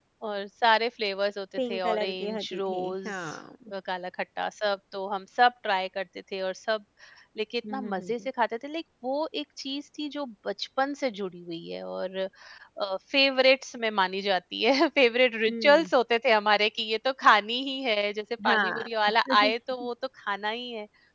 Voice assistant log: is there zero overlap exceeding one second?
No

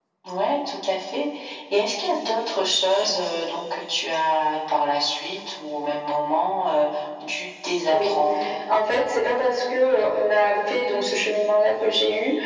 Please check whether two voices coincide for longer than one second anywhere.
No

